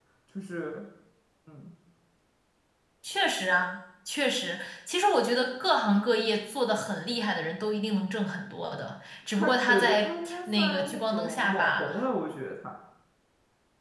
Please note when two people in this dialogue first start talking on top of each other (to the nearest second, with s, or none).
9 s